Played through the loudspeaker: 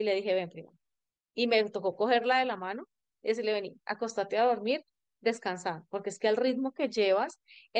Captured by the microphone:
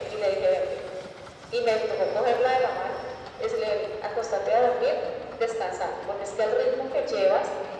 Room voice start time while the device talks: none

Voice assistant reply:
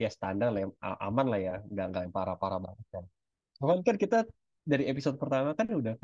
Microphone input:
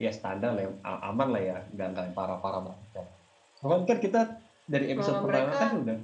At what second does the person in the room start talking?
5.0 s

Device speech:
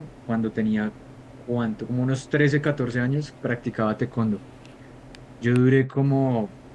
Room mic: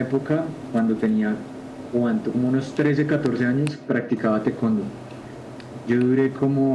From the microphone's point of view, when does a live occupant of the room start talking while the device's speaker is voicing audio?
none

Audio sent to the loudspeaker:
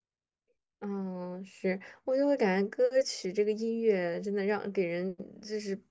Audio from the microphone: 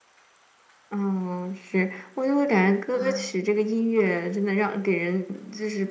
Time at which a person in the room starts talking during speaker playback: 3.0 s

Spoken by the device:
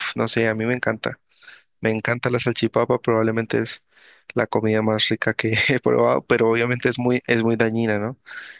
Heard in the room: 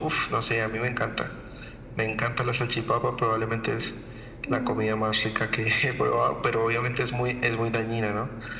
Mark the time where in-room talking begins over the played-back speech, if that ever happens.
4.5 s

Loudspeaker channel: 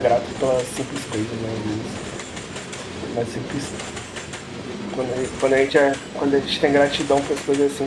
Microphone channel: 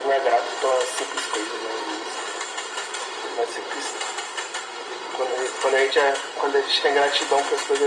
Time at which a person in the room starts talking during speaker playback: none

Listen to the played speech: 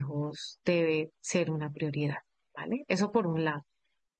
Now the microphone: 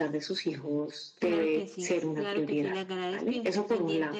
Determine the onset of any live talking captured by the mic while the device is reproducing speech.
1.1 s

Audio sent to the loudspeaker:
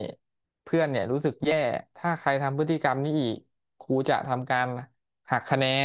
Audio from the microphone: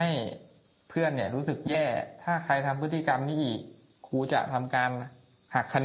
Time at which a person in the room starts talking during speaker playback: none

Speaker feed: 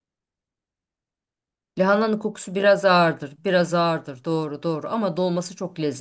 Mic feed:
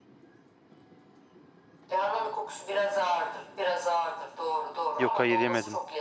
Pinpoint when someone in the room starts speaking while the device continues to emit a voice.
5.0 s

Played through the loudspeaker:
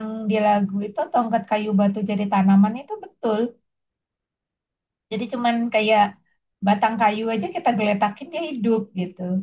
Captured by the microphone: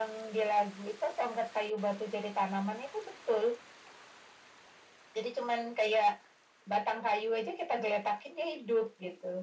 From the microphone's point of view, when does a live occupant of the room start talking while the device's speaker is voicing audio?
none

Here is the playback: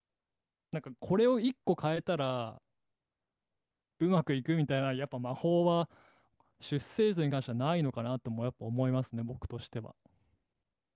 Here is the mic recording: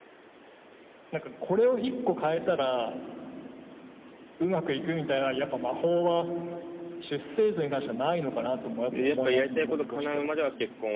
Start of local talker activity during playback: 8.9 s

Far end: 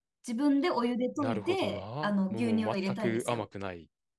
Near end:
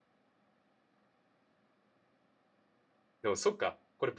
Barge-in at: 3.2 s

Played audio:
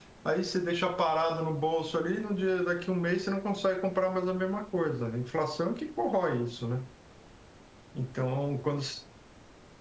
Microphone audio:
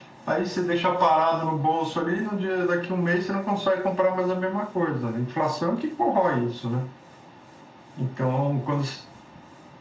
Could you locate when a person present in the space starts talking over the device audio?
none

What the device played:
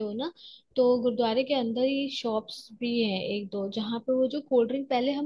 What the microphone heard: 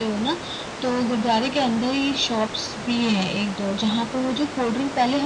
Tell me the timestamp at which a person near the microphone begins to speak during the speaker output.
none

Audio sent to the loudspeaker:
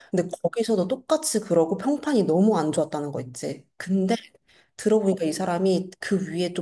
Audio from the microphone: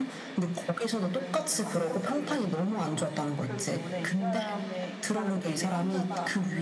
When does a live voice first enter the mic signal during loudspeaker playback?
1.0 s

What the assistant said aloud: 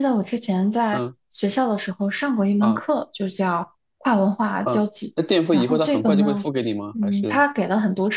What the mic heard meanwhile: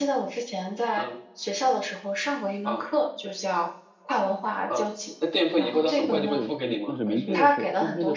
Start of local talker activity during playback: 6.0 s

